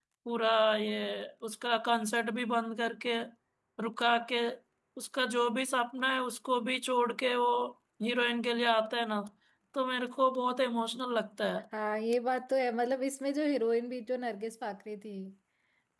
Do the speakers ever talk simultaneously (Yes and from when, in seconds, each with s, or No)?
No